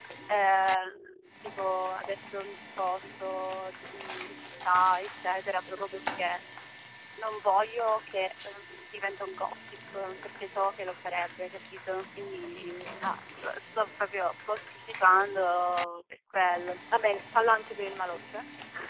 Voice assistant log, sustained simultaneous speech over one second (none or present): none